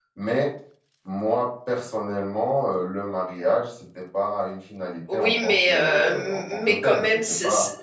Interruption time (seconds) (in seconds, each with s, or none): 5.1 s